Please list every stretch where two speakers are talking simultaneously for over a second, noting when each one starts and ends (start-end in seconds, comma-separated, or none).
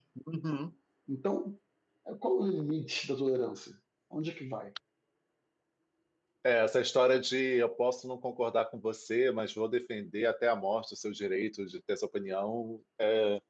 none